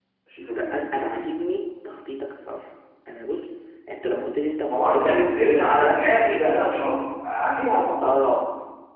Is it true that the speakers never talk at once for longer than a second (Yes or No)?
No